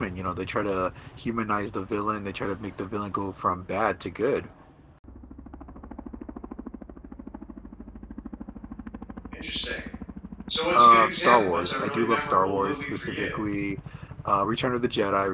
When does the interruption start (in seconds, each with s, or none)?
10.7 s